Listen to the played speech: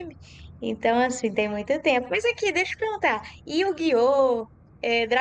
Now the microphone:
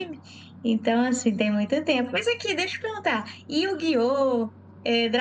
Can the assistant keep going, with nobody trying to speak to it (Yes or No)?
Yes